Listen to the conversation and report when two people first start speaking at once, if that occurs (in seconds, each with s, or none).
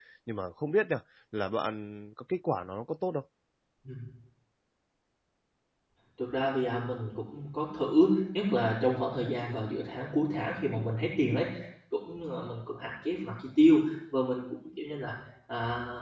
none